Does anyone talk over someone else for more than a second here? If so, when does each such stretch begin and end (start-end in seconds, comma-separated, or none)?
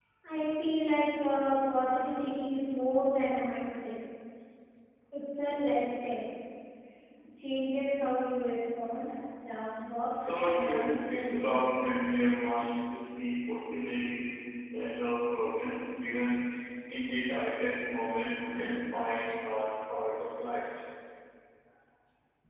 10.3-11.7